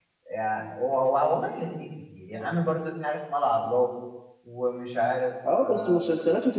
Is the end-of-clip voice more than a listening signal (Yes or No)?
Yes